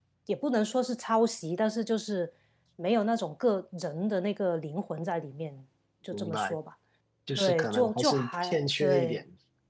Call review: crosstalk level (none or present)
present